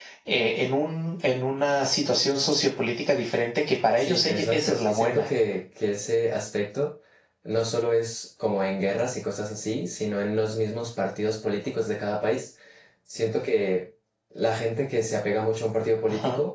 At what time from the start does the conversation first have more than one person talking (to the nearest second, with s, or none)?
4 s